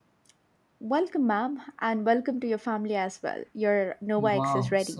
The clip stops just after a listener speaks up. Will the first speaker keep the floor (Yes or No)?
No